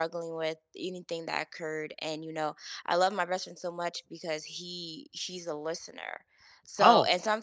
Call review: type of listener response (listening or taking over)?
listening